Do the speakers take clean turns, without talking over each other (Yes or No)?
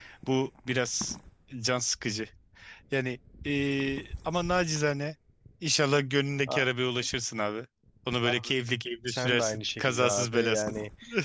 No